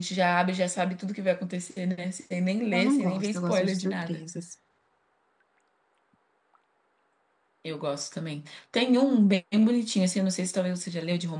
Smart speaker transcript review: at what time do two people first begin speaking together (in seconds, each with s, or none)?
2.7 s